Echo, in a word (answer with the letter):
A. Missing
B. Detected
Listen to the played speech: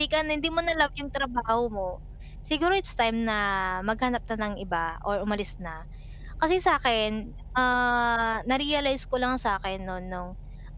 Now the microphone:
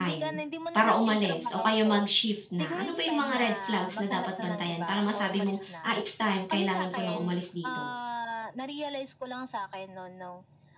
B